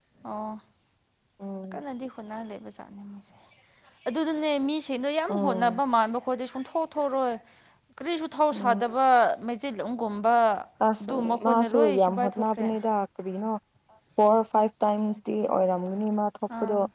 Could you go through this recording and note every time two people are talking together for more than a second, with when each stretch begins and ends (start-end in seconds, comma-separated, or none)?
11.0-12.7